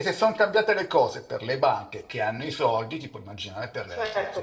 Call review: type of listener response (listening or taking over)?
taking over